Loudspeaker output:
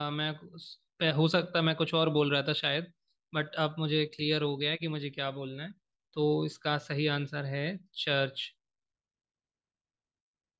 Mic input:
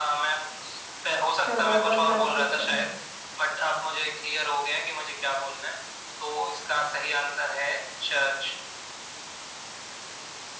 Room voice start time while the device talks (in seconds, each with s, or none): 1.5 s